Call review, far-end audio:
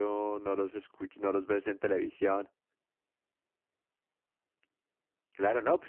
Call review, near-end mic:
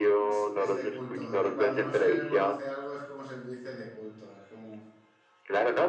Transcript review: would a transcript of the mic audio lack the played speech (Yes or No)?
No